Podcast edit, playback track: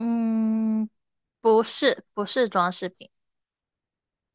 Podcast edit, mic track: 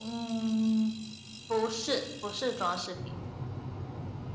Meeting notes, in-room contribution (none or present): none